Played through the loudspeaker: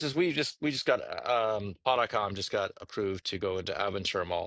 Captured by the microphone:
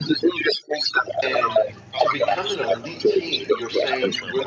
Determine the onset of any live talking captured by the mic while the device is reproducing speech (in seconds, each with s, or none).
1.2 s